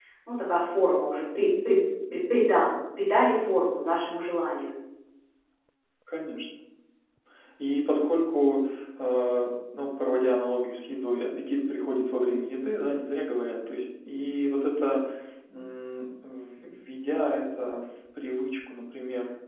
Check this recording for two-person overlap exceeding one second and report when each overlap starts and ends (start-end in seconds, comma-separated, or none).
none